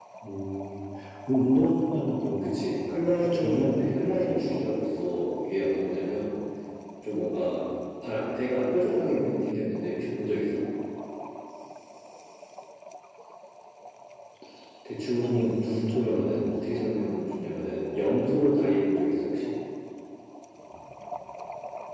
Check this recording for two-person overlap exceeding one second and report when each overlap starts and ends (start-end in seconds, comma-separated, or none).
3.2-4.6, 15.2-16.9